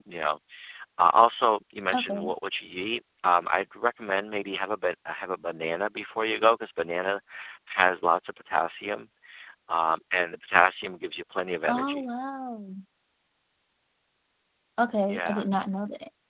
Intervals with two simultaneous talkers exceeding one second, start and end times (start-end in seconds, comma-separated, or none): none